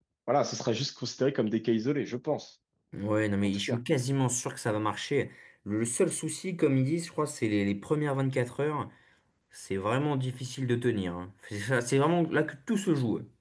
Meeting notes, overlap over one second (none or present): none